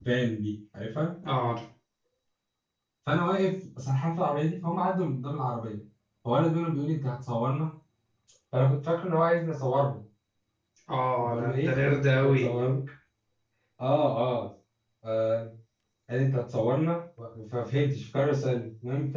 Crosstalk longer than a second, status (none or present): present